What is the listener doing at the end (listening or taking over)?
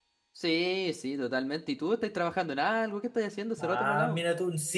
taking over